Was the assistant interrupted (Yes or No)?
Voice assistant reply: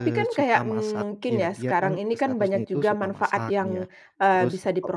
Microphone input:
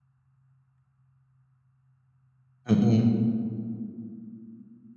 Yes